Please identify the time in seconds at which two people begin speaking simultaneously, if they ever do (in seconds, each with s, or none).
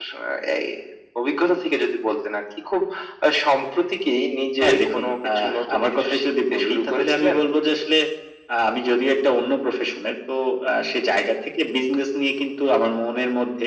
4.6 s